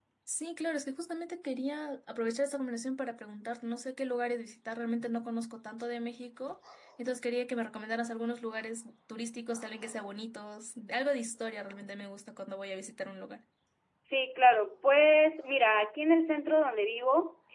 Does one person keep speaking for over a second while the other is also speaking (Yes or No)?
No